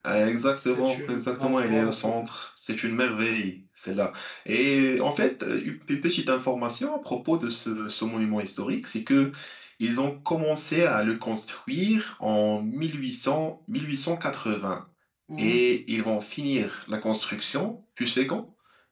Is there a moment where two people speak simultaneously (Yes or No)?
Yes